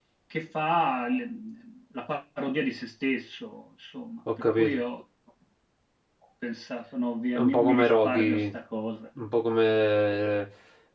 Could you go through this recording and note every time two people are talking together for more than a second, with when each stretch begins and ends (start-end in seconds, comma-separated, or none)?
7.3-8.6